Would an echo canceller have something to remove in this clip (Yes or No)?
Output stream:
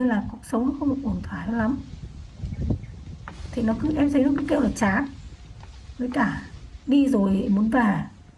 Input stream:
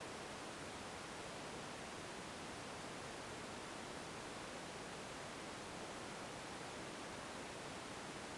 No